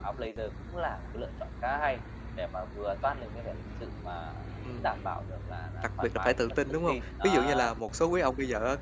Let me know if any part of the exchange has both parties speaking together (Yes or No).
Yes